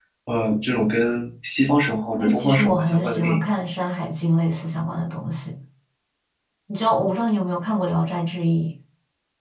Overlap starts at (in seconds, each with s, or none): 2.2 s